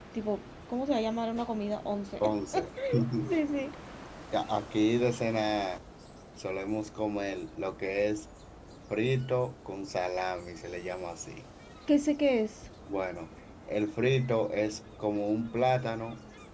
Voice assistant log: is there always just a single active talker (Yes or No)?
Yes